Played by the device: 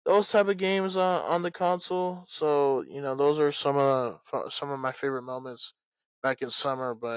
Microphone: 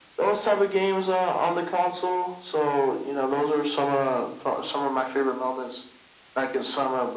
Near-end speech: none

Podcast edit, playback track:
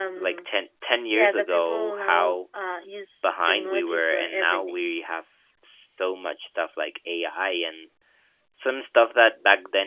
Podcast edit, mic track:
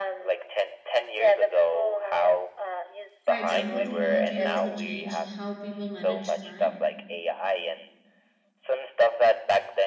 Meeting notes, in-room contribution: present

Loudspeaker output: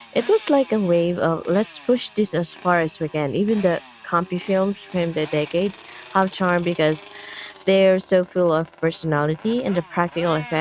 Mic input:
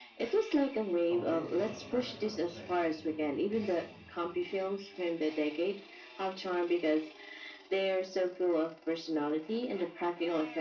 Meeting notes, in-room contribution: present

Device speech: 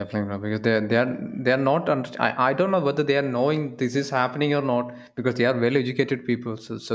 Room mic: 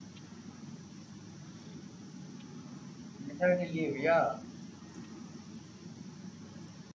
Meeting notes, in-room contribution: present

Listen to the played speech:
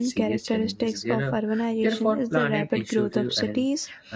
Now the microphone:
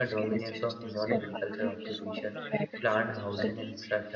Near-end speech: present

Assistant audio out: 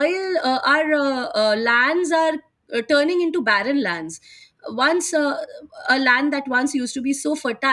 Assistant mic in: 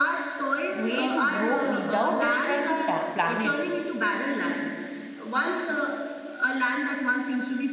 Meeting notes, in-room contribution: present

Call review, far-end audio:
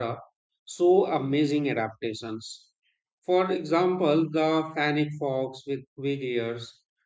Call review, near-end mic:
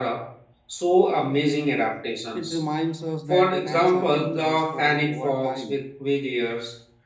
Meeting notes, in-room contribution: present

